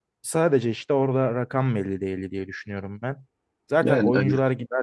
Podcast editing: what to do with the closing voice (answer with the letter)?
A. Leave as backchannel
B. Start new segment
A